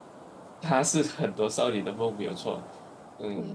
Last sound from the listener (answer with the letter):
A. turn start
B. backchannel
A